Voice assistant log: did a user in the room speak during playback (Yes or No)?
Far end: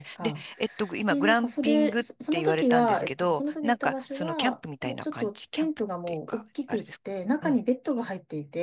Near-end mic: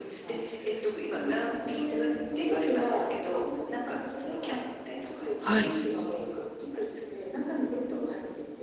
Yes